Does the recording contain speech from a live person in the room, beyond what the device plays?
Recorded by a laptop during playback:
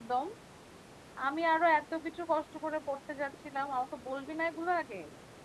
Yes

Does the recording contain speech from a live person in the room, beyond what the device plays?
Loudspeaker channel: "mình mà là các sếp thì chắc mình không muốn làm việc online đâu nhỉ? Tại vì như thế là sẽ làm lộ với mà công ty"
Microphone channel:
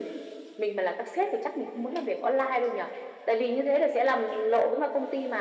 No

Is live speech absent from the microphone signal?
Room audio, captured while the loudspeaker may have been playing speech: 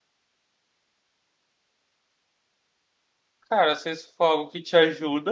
No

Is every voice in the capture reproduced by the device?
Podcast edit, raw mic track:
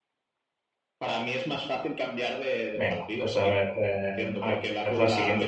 No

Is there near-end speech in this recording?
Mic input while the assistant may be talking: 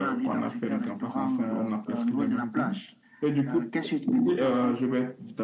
No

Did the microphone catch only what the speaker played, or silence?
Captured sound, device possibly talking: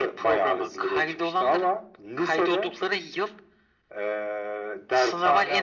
Yes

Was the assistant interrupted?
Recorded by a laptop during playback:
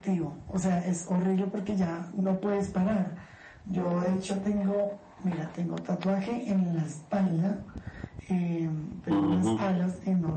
Yes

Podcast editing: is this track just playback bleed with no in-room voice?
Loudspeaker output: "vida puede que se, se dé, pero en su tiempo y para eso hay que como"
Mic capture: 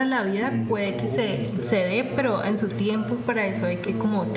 No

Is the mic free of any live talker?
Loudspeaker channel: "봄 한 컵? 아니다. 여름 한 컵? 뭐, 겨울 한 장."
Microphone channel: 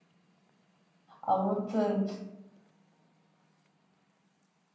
No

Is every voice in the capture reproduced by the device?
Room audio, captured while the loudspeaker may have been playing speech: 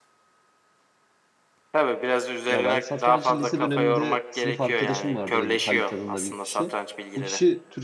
No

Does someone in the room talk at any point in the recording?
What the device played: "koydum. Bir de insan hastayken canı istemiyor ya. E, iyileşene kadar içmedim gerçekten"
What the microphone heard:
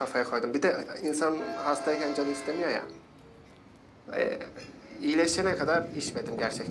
No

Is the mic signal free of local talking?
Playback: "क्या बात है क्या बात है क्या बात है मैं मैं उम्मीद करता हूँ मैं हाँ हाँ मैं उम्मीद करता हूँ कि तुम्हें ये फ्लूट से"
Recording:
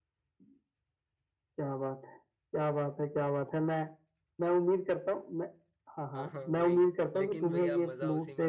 No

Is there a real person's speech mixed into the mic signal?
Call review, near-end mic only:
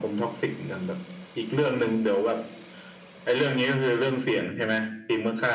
No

